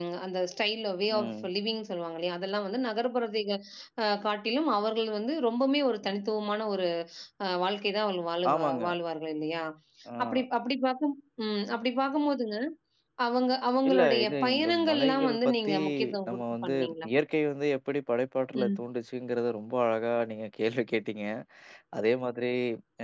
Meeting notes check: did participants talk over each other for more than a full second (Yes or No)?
Yes